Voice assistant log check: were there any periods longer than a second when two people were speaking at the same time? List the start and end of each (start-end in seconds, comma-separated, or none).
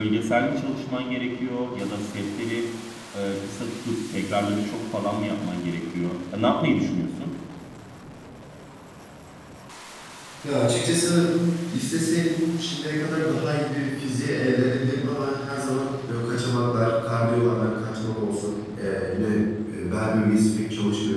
none